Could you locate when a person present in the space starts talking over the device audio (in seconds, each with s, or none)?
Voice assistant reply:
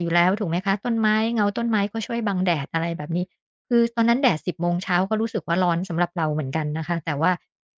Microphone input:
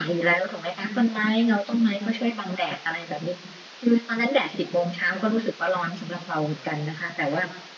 none